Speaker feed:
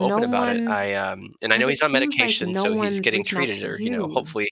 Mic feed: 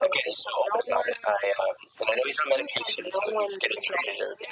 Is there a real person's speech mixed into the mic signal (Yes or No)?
No